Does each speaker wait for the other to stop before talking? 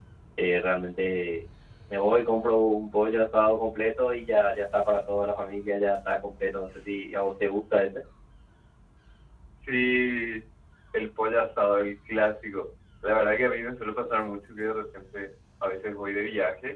Yes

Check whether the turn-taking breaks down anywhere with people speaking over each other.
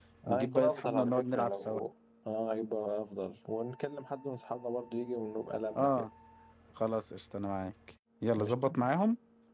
Yes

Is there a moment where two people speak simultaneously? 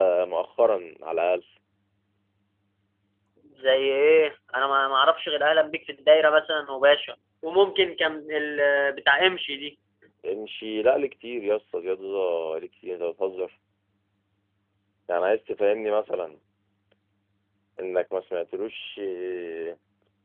No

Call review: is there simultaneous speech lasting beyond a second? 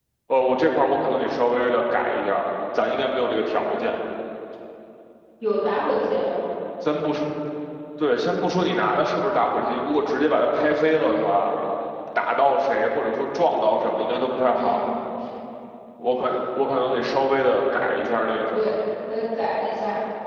No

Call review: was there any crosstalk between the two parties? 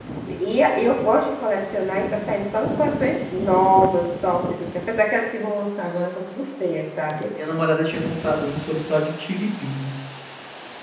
No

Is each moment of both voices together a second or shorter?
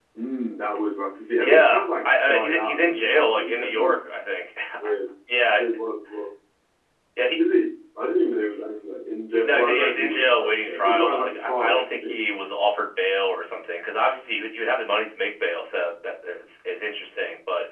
No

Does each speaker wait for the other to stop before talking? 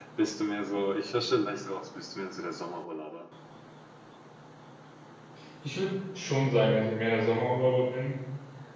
Yes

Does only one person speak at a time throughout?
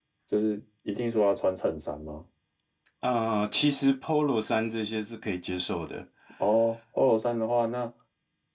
Yes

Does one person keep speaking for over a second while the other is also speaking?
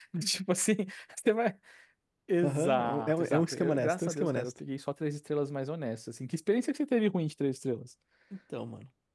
Yes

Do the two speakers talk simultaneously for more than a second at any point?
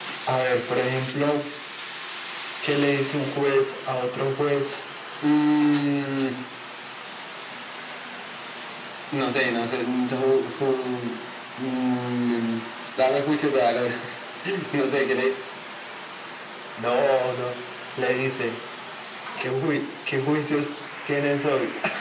No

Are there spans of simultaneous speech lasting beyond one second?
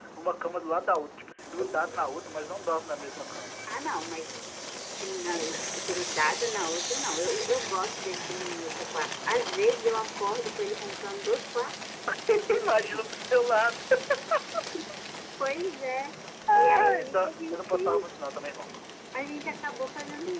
Yes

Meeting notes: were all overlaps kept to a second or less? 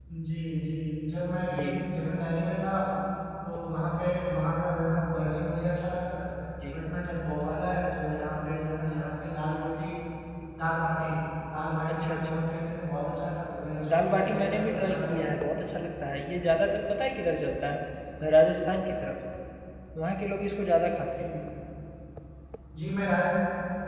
No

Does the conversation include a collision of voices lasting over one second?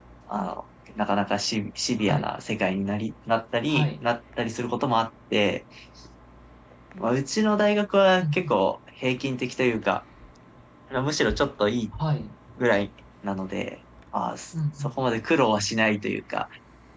No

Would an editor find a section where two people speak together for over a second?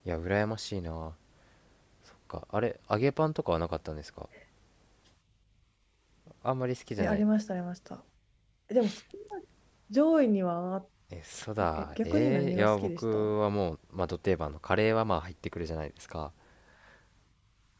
Yes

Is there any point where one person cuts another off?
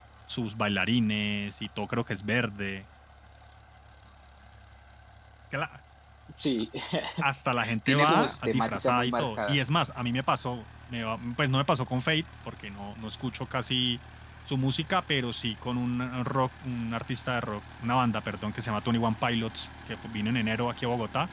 Yes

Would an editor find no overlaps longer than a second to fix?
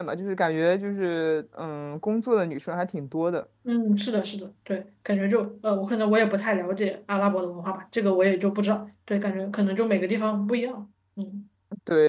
Yes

